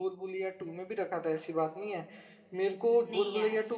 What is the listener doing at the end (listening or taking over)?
listening